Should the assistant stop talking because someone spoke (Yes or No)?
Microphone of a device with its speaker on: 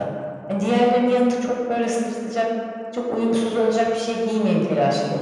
No